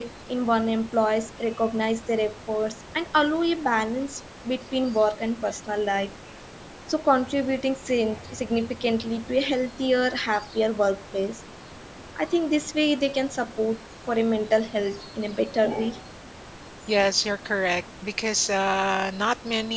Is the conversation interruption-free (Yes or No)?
Yes